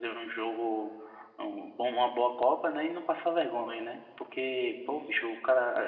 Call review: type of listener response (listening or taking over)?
listening